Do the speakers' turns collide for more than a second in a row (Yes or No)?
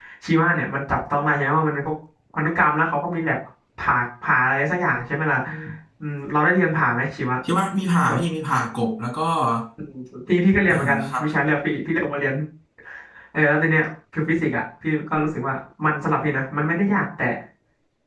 No